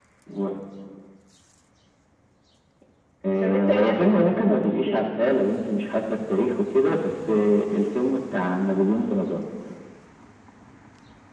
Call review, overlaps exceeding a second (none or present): present